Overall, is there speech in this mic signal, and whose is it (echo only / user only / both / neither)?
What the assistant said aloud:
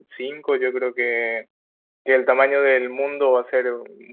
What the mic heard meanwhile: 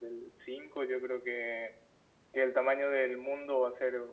echo only